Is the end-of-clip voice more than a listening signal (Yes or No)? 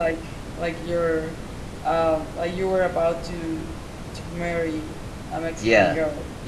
Yes